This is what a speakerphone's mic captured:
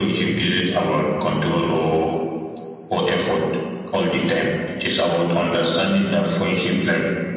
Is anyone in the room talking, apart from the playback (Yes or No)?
No